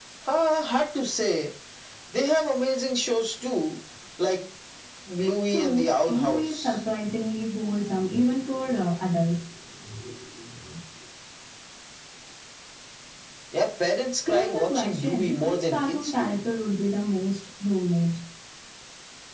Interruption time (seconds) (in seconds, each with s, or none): 5.5 s